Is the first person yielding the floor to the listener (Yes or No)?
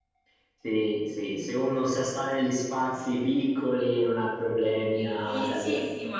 Yes